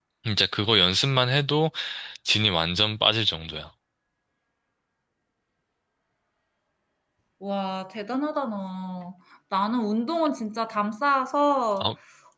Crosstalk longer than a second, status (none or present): none